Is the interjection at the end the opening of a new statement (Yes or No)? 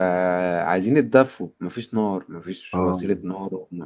No